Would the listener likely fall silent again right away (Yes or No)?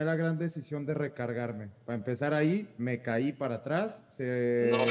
Yes